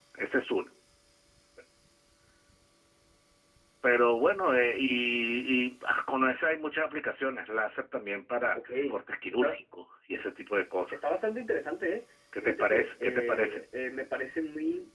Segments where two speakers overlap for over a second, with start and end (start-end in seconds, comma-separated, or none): 12.4-13.6